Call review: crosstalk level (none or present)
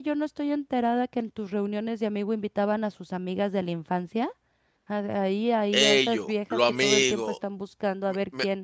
present